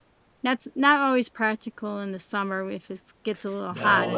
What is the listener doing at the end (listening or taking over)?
taking over